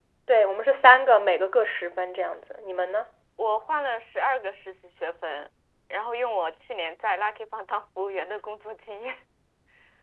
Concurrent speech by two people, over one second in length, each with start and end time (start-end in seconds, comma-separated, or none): none